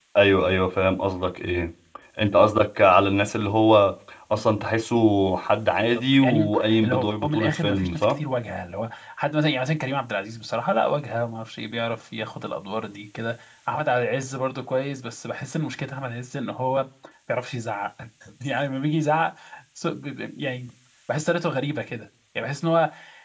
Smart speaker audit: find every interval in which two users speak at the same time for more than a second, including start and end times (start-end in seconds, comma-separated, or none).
5.9-8.1